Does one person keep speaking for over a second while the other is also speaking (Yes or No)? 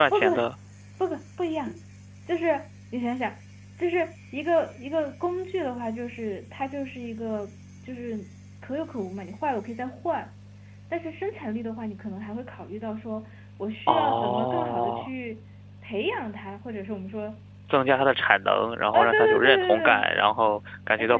Yes